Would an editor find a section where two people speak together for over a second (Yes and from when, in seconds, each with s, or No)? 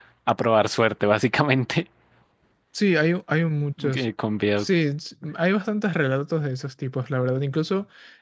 No